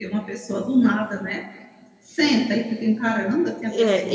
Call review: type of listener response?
taking over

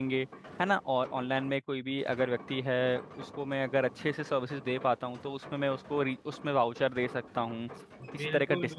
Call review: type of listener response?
taking over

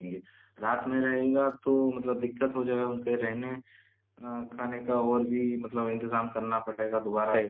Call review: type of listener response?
taking over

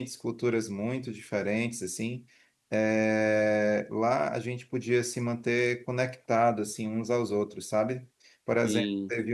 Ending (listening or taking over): listening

